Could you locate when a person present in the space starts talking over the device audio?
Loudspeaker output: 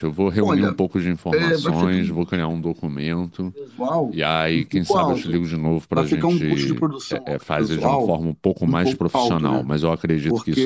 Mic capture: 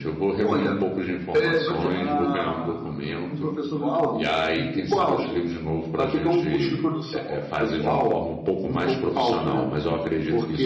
2 s

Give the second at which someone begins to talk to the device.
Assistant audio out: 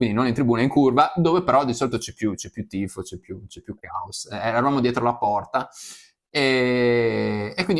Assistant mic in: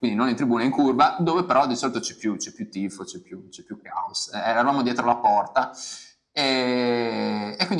none

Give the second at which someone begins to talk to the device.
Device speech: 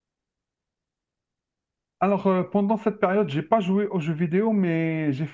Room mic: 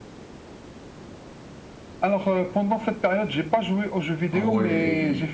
4 s

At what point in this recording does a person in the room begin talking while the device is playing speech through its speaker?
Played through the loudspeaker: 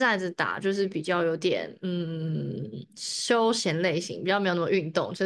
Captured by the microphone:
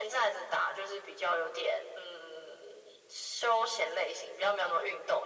none

